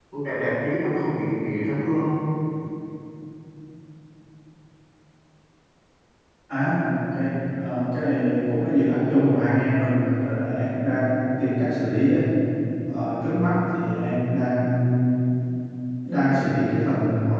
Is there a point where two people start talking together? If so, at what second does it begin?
none

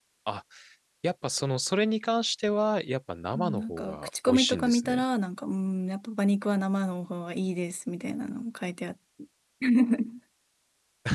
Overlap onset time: 3.3 s

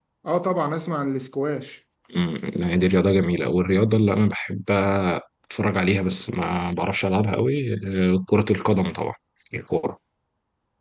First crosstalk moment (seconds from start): none

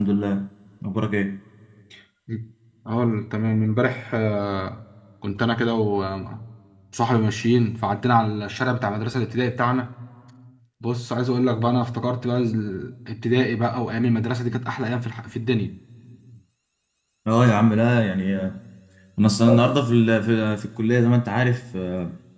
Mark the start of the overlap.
none

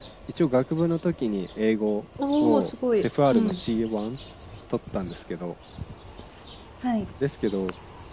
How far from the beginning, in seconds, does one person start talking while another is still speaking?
2.2 s

